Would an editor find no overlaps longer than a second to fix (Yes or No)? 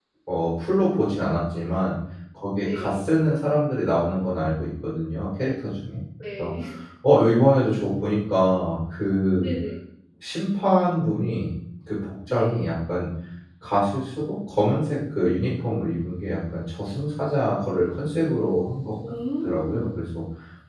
Yes